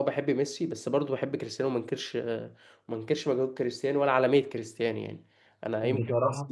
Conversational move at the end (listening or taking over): listening